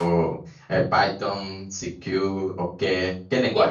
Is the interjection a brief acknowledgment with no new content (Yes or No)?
No